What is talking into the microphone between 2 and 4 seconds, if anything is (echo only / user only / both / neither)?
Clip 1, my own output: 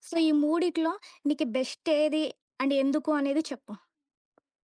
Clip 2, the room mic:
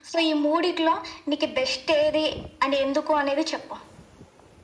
echo only